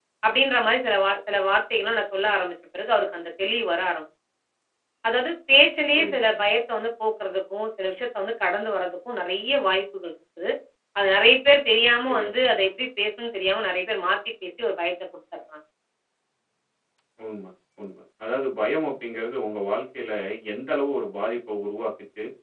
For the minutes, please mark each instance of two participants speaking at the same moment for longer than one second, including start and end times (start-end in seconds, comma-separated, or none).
none